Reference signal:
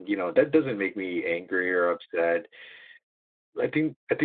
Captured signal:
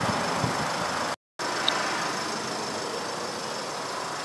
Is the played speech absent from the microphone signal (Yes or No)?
Yes